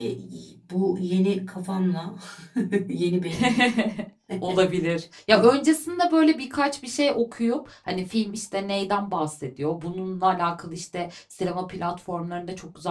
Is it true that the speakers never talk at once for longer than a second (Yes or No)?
Yes